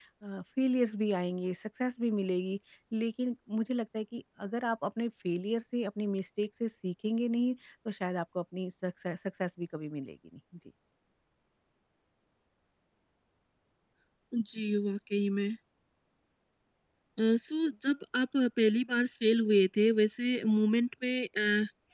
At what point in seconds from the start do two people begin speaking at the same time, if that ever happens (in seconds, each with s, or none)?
none